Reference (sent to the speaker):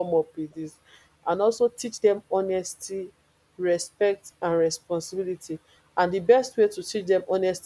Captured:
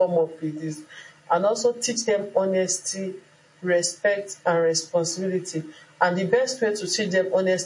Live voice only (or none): none